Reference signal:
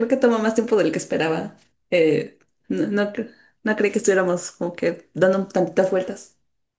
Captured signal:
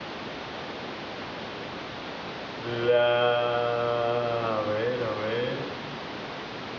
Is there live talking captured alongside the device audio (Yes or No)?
Yes